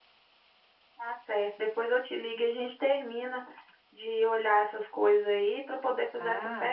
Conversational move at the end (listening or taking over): taking over